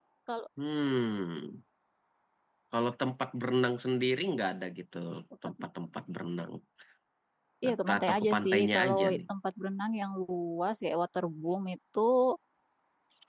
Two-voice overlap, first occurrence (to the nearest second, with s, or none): 8 s